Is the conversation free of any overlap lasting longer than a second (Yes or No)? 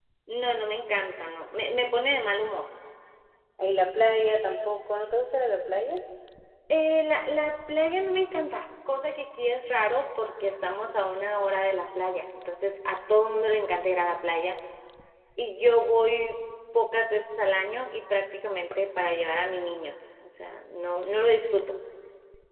Yes